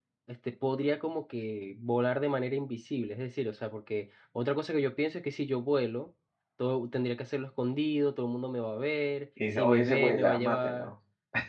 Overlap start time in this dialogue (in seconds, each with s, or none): 9.4 s